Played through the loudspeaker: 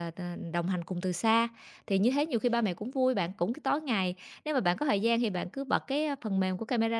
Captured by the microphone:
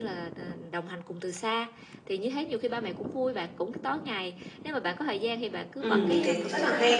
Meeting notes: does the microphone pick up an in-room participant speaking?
Yes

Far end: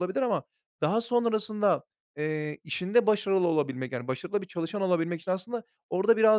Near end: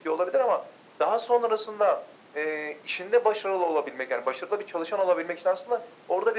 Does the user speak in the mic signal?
No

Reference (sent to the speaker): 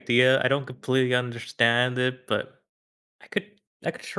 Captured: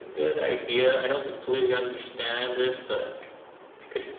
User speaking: No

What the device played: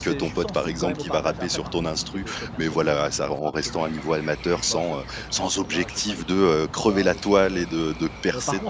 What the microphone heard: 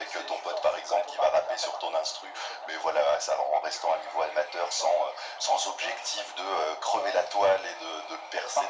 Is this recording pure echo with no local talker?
Yes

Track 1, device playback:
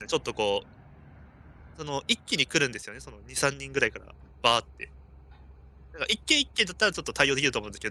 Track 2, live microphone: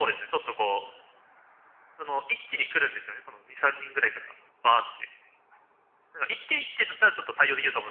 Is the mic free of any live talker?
Yes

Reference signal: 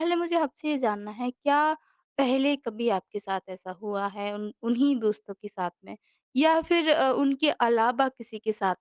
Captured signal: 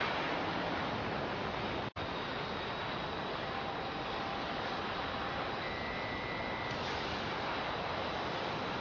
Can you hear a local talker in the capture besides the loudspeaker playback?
No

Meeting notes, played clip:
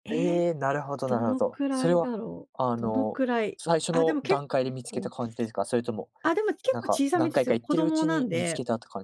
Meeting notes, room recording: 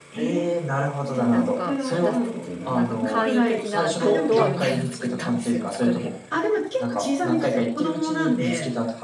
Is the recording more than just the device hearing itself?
Yes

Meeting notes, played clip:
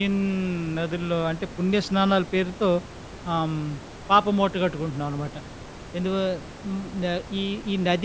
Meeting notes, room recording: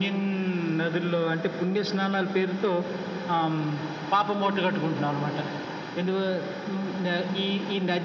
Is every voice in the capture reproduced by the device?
Yes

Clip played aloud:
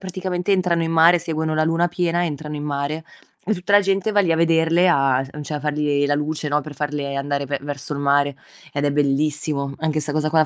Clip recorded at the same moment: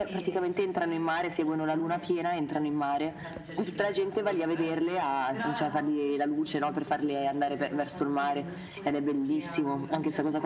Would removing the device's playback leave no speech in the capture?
No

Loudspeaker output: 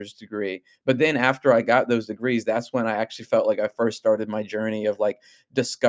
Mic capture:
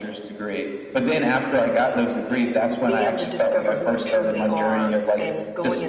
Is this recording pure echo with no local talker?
No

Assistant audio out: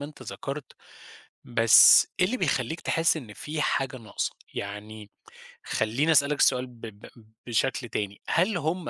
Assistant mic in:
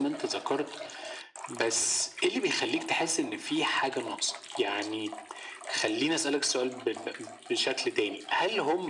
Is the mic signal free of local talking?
Yes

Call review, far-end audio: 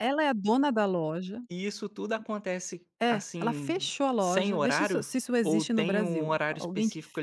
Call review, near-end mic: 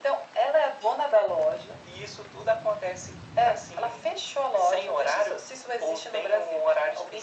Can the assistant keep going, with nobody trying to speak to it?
Yes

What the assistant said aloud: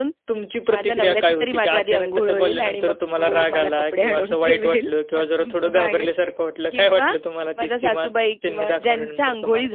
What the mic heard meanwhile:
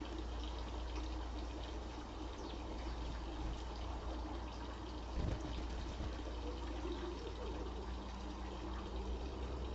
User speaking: No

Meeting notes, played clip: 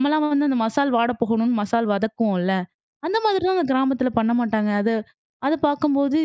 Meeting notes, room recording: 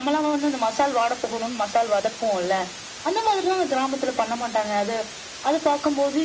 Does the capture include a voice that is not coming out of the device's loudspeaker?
No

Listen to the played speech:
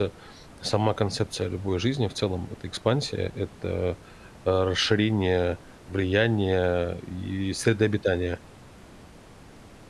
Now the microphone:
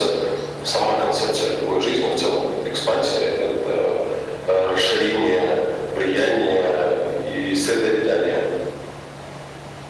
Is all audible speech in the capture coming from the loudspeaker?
Yes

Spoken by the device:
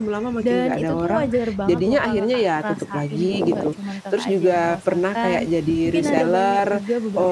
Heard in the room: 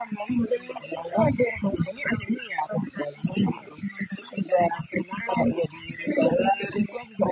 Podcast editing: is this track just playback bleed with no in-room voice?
Yes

